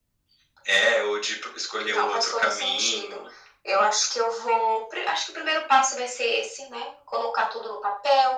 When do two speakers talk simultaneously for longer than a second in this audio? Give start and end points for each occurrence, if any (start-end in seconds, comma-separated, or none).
1.9-3.2